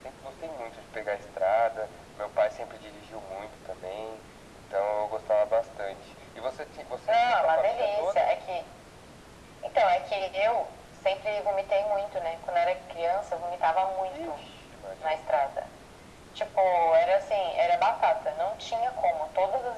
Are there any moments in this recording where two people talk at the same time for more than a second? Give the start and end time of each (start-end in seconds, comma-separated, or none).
7.1-8.3